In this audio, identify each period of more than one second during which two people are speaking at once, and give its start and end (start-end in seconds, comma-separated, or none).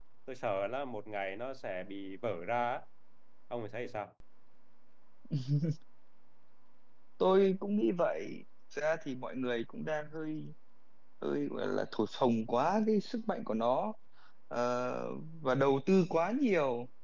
none